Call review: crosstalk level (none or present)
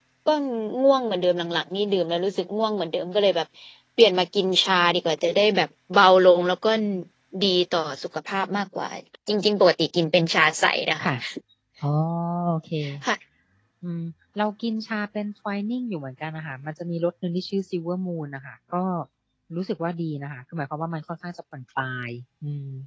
none